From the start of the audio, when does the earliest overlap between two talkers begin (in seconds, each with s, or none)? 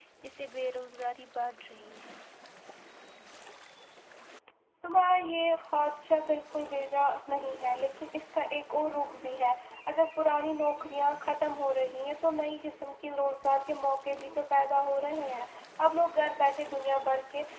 none